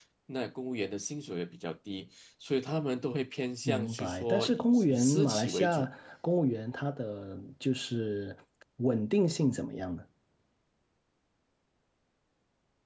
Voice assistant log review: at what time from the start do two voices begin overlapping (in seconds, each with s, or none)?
3.6 s